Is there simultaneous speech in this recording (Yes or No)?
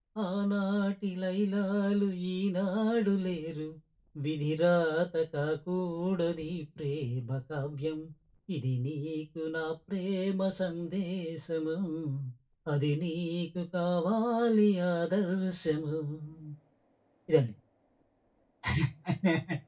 No